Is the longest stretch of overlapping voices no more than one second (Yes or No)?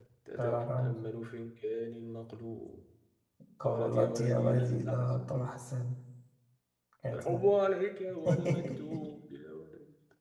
No